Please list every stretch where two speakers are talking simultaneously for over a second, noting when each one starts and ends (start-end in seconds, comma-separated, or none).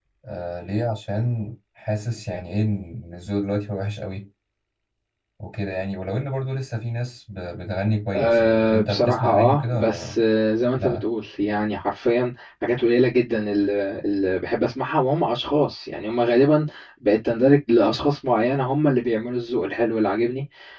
8.1-10.2